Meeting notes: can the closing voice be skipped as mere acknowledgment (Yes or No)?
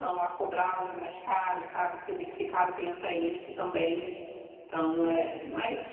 No